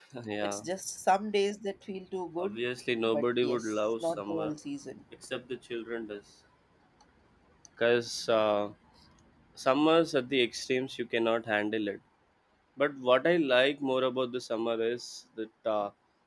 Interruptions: present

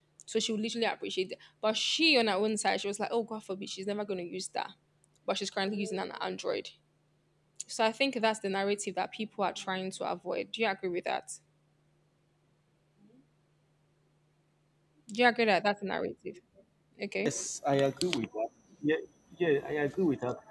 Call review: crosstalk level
none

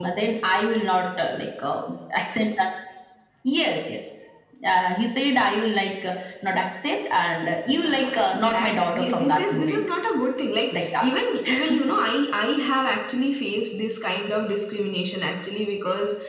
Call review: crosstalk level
present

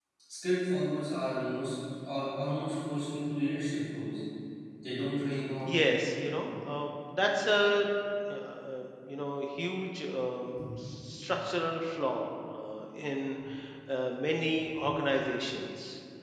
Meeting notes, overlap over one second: none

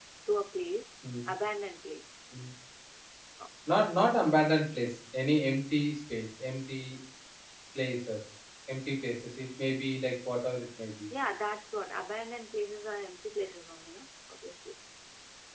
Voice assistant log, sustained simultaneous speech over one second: none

